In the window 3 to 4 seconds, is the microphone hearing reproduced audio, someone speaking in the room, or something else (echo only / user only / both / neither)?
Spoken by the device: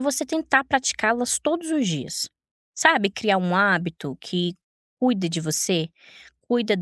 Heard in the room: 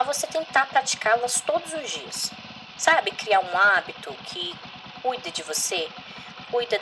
echo only